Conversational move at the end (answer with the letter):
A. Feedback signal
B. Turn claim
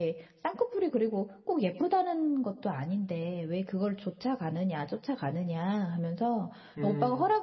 A